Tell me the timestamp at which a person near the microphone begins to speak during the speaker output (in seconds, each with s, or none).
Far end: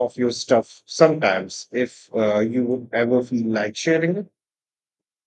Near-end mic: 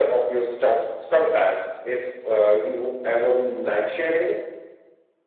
none